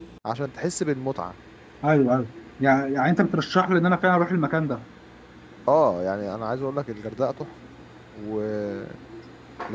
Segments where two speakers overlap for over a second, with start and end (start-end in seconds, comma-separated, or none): none